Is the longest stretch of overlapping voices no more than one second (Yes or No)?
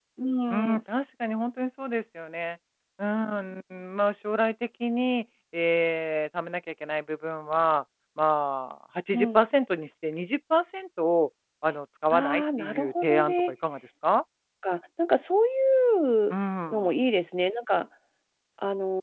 No